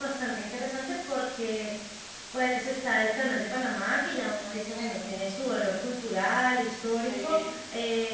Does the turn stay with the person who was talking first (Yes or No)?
Yes